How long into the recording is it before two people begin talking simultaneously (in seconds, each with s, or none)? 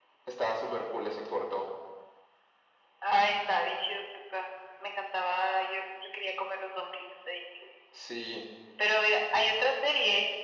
none